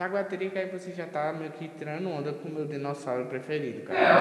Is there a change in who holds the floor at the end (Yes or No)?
Yes